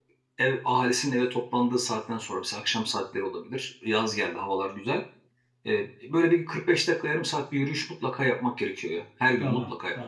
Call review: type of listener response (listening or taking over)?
taking over